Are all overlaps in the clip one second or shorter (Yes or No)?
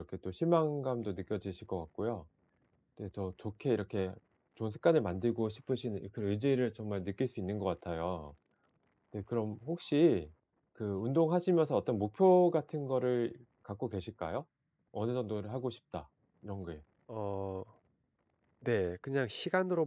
Yes